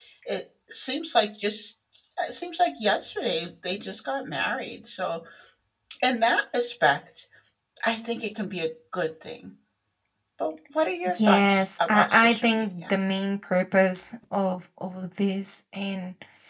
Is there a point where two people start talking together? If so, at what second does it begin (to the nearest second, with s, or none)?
11 s